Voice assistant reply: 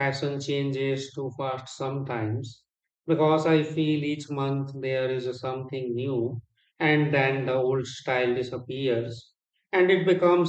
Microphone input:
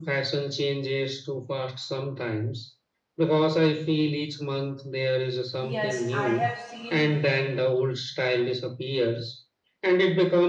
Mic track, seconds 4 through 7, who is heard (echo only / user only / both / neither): both